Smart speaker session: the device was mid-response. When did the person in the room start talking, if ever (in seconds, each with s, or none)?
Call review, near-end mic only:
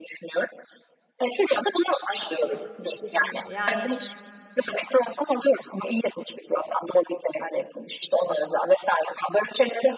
2.1 s